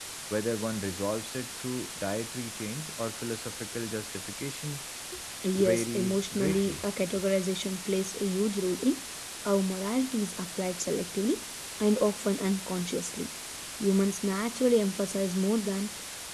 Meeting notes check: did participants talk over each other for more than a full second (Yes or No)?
Yes